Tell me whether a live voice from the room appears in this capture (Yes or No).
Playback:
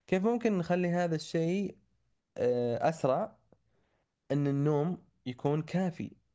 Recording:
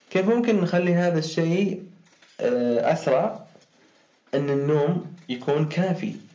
No